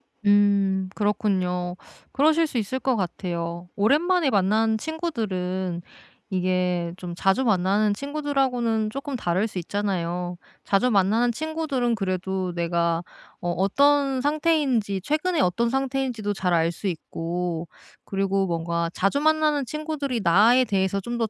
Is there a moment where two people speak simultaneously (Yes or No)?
No